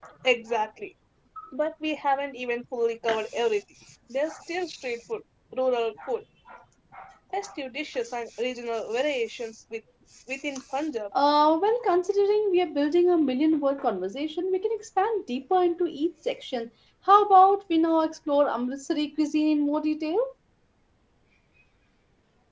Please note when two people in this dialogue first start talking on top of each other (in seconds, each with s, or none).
none